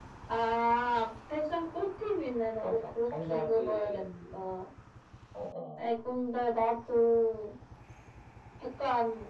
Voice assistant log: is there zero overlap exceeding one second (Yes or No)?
No